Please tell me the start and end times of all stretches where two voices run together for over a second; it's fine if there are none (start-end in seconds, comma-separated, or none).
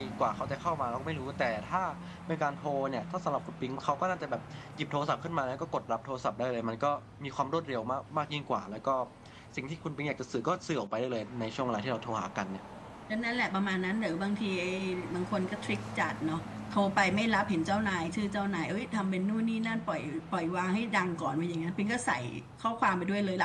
none